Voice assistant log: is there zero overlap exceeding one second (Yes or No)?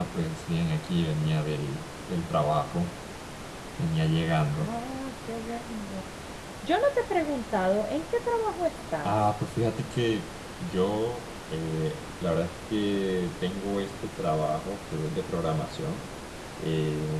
Yes